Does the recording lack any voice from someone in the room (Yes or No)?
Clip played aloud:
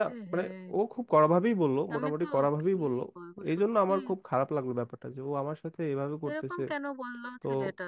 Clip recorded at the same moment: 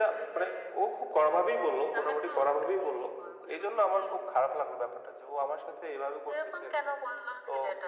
Yes